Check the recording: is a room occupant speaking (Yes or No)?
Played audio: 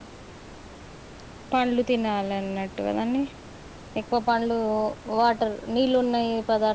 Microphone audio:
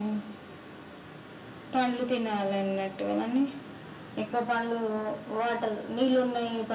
No